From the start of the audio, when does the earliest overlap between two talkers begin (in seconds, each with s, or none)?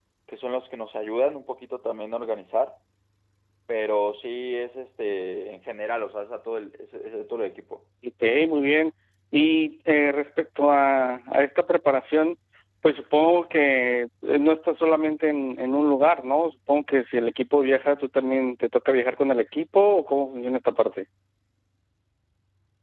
none